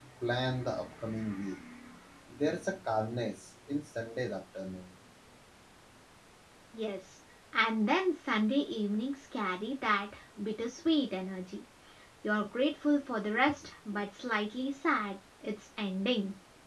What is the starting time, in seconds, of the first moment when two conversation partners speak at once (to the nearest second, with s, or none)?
none